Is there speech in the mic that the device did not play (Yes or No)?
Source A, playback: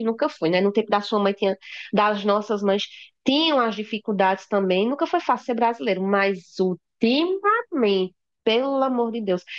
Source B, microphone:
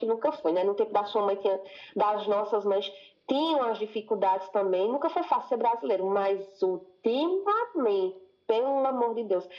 No